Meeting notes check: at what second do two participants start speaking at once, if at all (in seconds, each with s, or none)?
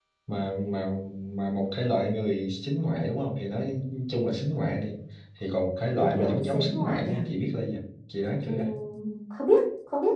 5.9 s